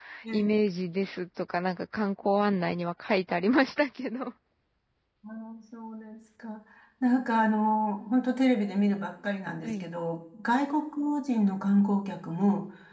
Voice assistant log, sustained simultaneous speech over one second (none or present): none